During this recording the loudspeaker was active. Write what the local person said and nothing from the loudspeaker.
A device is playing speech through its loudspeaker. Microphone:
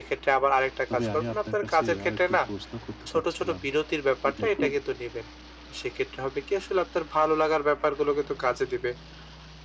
তবে আমি আপনার কাছে আরেকটু প্রশ্ন করতে চাচ্ছিলাম। যে দেখুন,

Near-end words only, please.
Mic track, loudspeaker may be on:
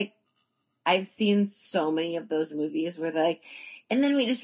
none

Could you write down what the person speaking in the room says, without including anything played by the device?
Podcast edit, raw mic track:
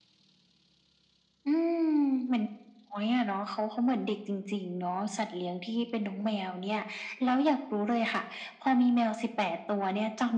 none

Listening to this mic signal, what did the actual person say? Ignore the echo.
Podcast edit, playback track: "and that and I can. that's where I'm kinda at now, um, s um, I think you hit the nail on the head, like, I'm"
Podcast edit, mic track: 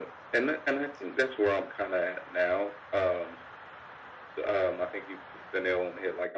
none

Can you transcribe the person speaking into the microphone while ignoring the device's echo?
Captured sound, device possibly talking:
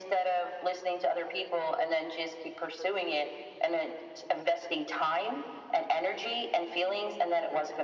none

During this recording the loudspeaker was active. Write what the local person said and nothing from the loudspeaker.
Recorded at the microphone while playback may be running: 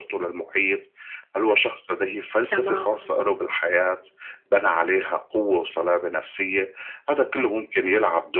تمام،

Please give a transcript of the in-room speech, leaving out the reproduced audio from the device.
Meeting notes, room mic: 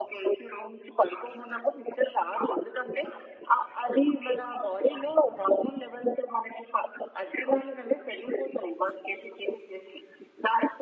none

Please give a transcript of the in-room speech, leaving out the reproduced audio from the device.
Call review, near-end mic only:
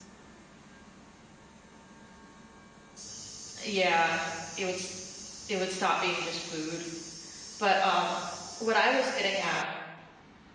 Yeah, it would s it would stop being just food, but, um, what I was getting at

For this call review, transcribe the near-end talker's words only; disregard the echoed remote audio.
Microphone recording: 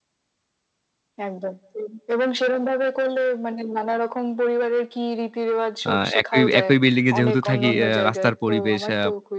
আ একই একই বিল্ডিং এ যেহেতু থাকি অ্যা রাস্তার পরিবেশ, অ্যা

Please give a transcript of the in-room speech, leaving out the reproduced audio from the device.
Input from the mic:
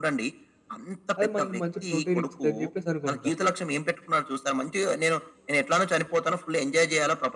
అది మనకి మంచి ప్రోటీన్ ఇచ్చిద్దని చెప్పేసి అనుకుంటాం.

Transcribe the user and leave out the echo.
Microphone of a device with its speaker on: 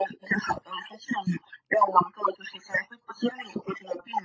none

